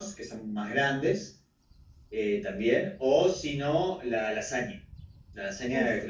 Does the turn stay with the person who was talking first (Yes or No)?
Yes